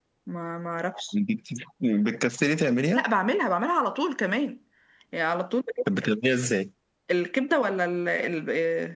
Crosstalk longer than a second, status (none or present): none